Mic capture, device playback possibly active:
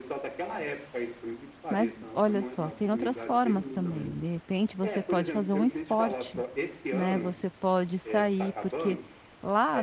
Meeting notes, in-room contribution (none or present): present